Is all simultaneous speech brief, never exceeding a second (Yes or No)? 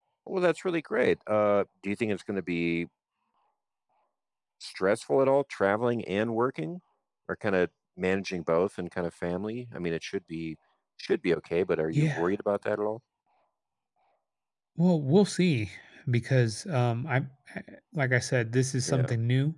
Yes